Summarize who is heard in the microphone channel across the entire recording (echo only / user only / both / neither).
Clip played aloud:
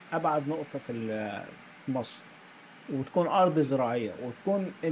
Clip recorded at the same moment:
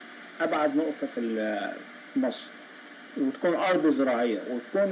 echo only